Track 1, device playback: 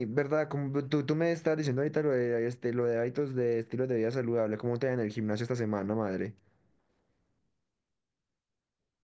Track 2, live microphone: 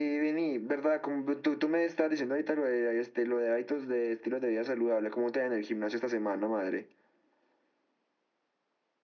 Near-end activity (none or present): none